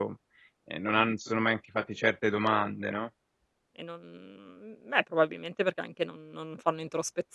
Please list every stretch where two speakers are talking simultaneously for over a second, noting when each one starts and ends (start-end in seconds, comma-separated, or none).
none